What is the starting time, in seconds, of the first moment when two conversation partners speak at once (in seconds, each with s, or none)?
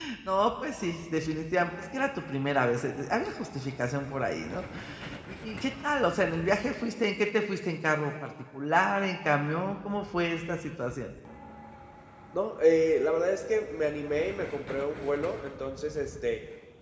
none